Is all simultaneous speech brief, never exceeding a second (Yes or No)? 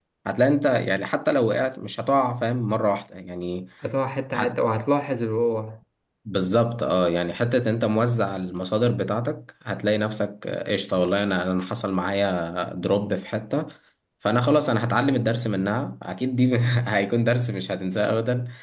Yes